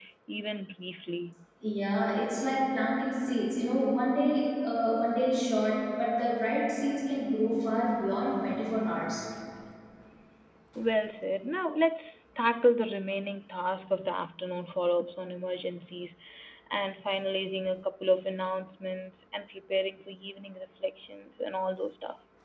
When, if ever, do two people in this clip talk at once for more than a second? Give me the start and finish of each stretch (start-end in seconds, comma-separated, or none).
none